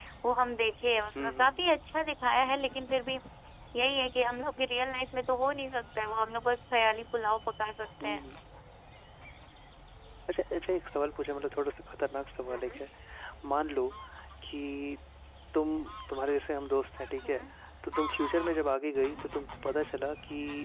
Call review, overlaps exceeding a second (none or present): none